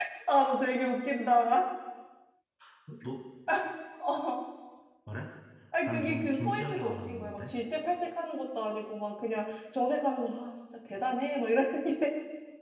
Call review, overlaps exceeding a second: present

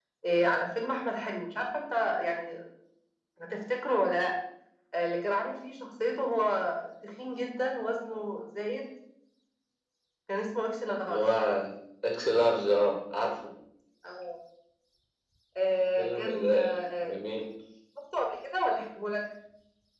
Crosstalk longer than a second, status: present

